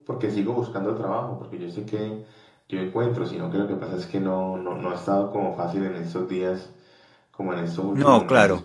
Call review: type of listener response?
listening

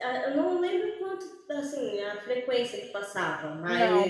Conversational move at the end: listening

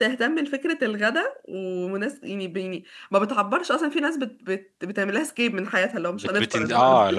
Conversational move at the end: taking over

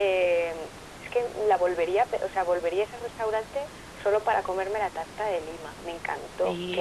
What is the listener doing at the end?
taking over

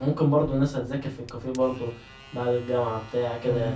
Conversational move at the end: taking over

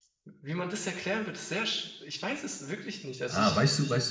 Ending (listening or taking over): taking over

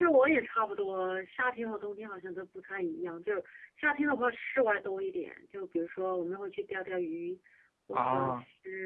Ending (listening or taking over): listening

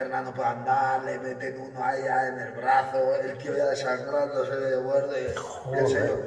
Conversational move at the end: listening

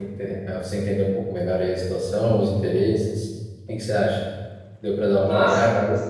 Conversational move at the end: taking over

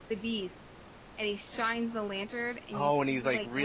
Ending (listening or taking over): taking over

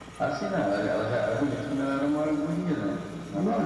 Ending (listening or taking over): taking over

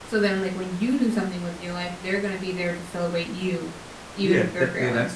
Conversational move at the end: taking over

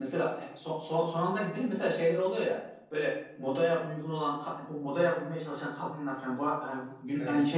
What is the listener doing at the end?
listening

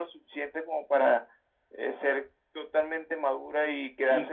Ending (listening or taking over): listening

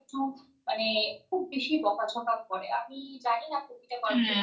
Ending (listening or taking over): taking over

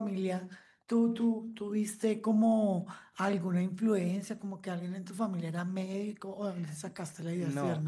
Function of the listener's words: taking over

